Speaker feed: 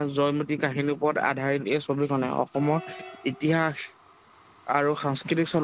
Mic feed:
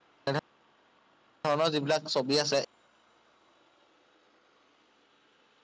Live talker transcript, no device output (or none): এনেধৰণৰ যিবিলাক ছবি আছে,